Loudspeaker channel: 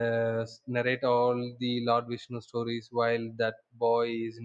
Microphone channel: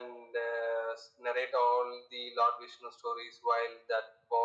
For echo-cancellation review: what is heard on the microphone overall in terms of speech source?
echo only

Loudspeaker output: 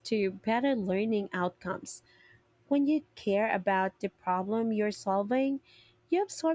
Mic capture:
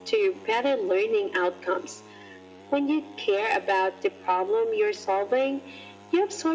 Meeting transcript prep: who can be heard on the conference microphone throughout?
echo only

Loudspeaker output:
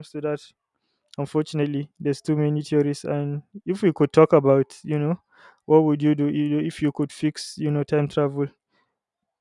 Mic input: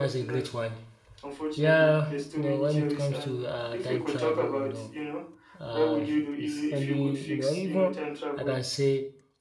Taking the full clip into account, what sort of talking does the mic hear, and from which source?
both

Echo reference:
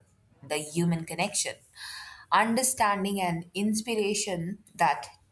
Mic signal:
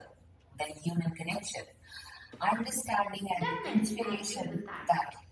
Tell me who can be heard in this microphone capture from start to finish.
both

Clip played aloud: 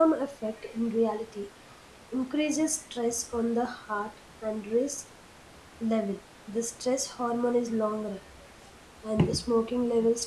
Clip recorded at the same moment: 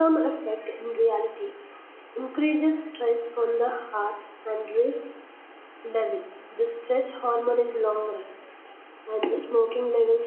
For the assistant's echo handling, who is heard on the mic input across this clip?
echo only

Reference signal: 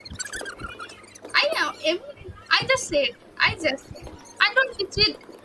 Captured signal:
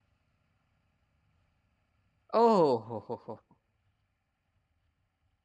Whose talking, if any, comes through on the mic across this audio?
user only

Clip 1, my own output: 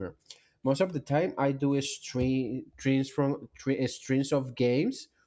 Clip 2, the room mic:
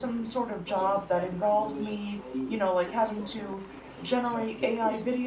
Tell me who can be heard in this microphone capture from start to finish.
both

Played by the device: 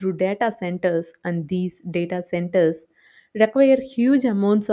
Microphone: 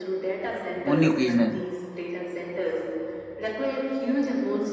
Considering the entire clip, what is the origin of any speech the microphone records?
both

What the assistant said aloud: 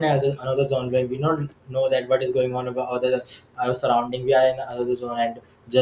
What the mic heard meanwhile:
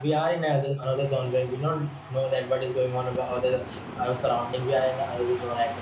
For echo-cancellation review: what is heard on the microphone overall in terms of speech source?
echo only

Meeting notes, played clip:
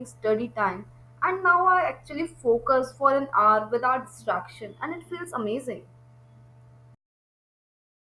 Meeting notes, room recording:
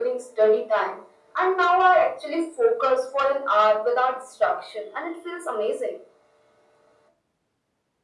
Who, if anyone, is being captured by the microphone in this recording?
echo only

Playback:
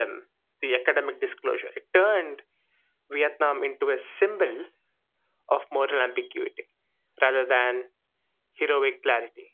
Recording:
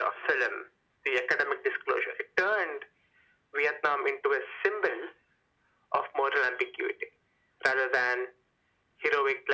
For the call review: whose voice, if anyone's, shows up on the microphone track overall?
echo only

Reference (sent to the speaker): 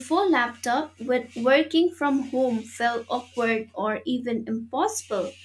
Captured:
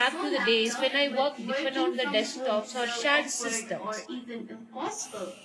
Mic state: both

